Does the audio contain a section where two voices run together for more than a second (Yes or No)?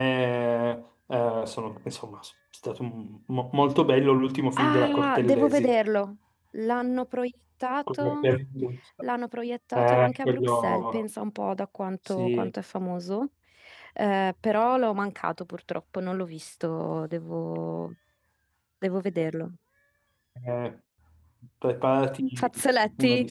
Yes